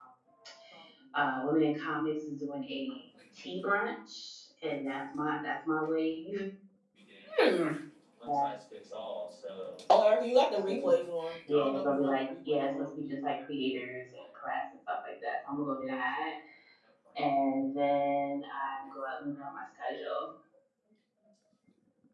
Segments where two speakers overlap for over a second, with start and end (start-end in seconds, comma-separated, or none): 11.5-12.9